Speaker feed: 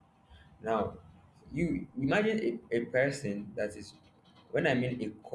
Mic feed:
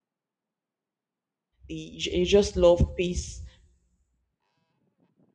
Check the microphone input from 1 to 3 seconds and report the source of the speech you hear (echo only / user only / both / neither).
user only